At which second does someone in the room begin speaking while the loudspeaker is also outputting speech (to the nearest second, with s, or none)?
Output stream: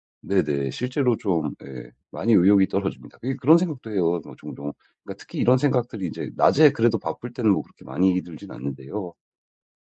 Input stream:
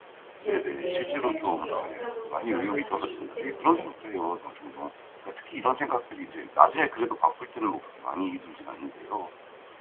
0 s